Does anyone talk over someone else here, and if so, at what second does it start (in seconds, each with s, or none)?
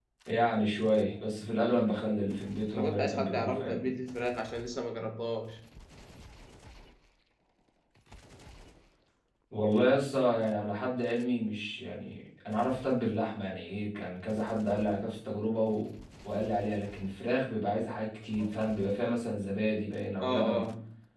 2.7 s